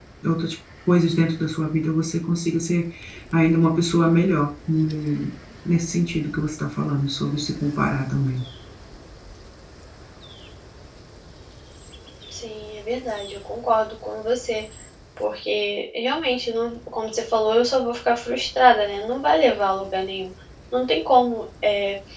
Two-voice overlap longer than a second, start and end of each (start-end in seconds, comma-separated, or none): none